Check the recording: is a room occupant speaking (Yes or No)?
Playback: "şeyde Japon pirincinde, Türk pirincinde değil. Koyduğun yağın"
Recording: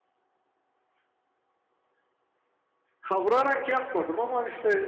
Yes